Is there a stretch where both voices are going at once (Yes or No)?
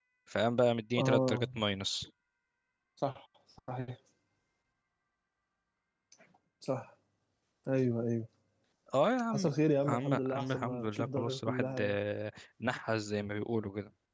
Yes